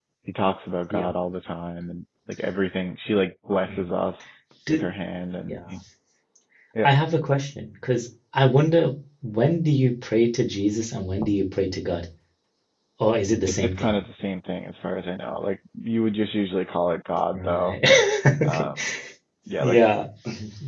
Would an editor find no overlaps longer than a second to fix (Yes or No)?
Yes